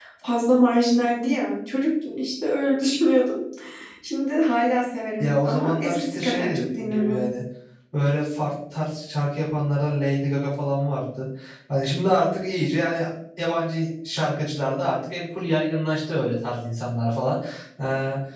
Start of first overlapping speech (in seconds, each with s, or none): 5.2 s